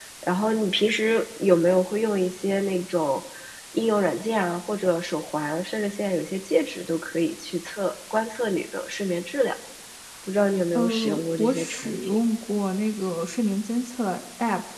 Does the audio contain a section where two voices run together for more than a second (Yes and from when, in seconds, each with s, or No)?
Yes, from 10.8 s